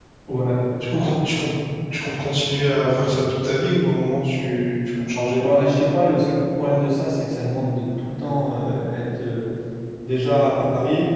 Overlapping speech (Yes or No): No